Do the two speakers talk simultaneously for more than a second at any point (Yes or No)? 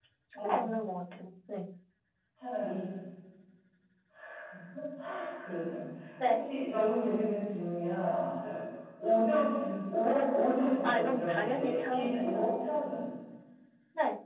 Yes